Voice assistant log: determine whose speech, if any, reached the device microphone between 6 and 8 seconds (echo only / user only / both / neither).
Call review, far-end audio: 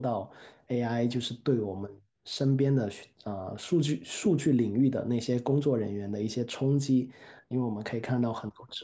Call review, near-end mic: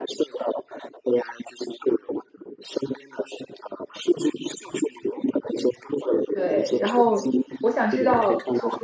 both